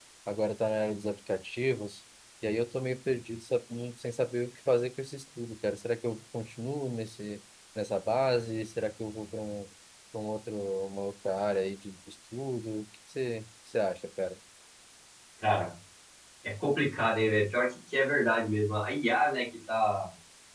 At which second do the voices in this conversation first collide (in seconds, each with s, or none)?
none